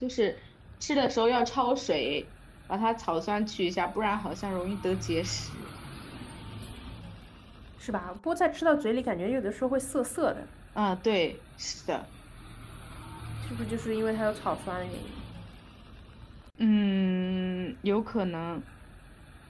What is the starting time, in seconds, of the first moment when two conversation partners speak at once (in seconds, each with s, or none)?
none